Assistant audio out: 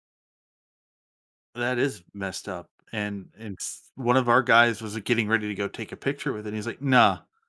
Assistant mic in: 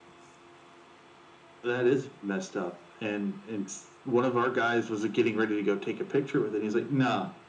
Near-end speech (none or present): none